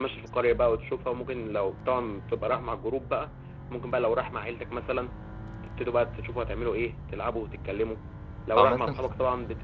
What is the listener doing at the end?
listening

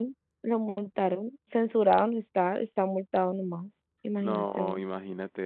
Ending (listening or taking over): taking over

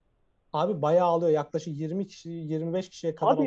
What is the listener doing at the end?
taking over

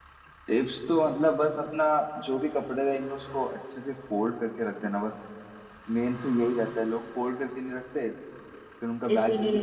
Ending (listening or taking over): listening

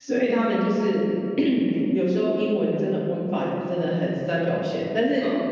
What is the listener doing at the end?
listening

